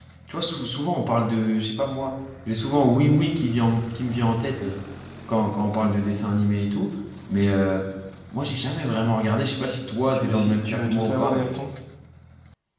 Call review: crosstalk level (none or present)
present